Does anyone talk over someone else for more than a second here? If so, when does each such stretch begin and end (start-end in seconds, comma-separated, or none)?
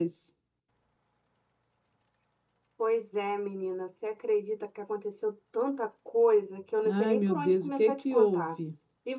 6.8-8.5